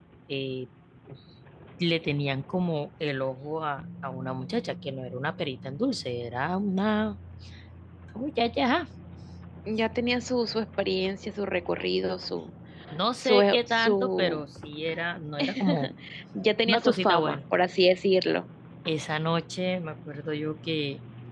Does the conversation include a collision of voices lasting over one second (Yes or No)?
Yes